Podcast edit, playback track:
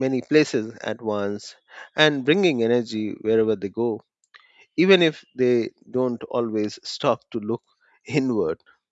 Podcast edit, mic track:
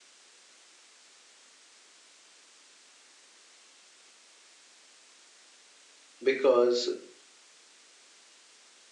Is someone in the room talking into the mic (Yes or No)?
Yes